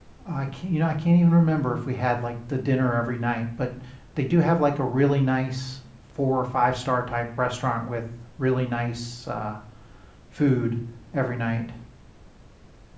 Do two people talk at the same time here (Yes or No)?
No